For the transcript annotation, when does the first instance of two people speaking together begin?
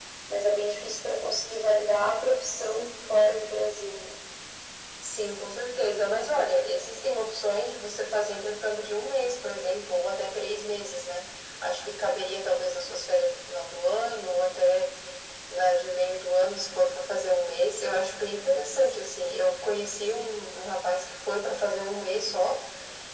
none

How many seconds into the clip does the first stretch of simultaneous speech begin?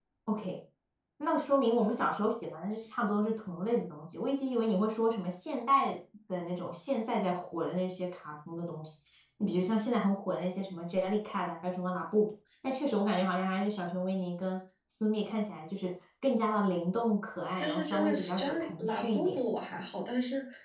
17.6 s

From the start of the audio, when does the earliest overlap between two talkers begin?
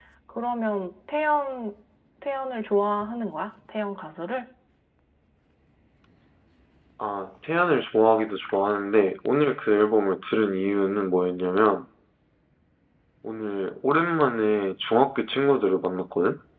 none

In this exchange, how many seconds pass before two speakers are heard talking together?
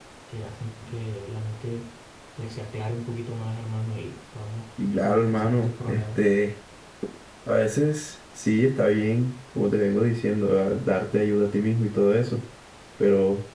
4.8 s

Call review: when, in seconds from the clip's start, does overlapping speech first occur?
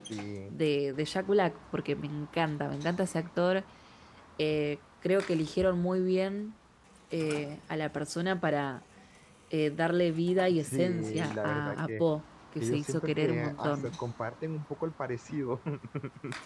10.6 s

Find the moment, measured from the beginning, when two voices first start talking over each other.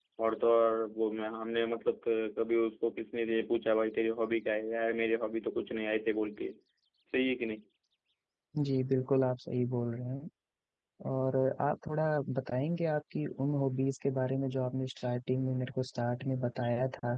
none

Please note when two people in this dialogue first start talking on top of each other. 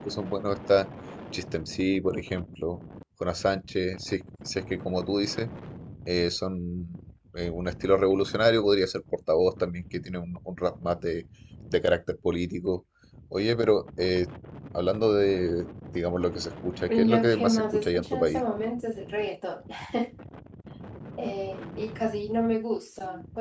16.9 s

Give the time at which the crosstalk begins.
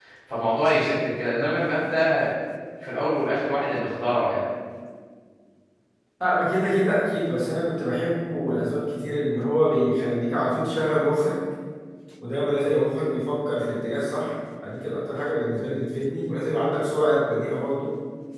none

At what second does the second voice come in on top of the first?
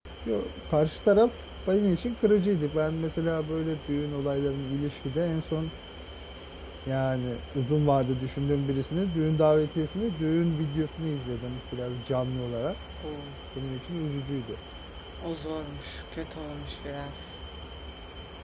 none

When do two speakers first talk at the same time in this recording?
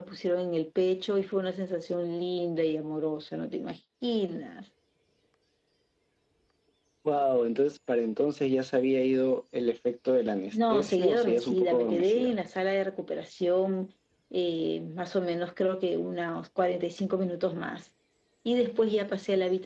10.5 s

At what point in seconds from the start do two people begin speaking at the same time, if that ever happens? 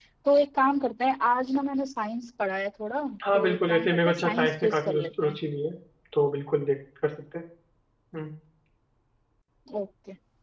3.2 s

